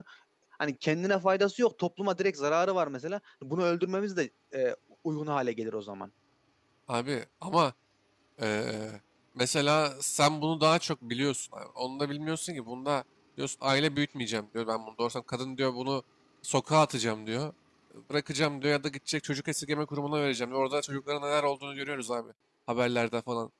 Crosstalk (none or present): none